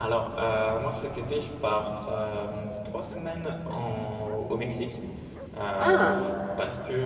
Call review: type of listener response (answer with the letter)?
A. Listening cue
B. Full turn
A